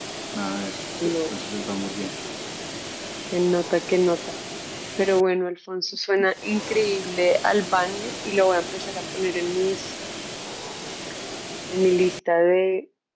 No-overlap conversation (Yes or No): Yes